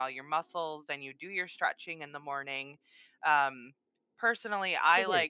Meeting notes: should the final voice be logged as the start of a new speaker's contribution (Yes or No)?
No